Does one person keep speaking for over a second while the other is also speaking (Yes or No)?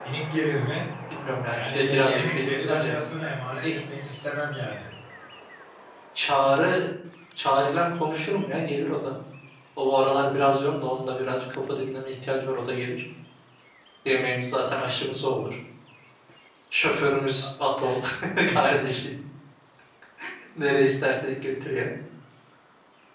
Yes